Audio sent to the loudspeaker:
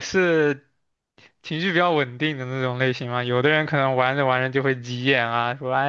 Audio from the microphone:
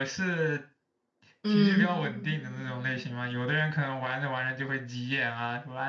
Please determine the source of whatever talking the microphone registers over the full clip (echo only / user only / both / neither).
both